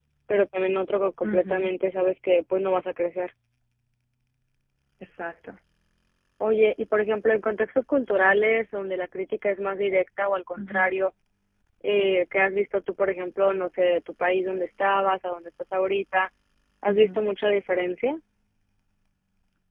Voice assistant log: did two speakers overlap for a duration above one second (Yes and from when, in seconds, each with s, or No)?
No